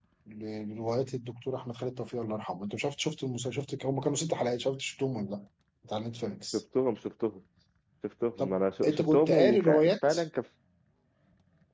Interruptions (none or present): present